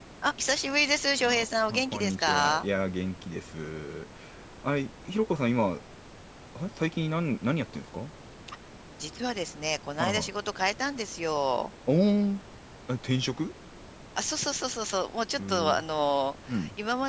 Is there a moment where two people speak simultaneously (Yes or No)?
Yes